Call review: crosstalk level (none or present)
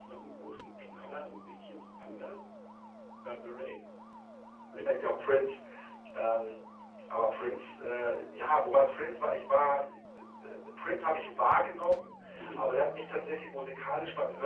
none